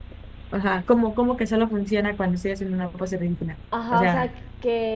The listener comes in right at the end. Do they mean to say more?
Yes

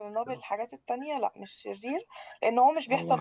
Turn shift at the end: No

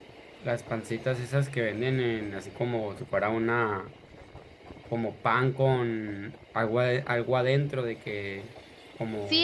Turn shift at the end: Yes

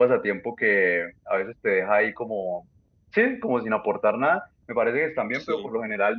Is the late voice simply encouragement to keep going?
Yes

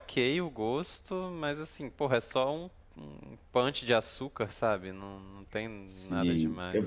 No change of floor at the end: No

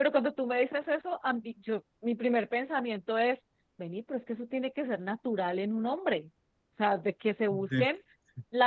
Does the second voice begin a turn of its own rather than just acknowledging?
No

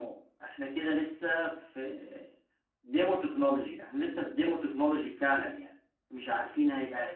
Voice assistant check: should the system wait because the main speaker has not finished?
Yes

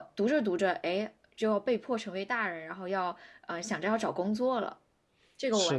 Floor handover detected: Yes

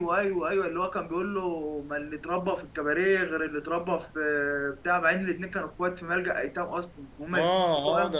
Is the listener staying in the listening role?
No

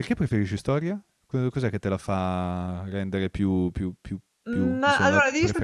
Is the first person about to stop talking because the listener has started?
Yes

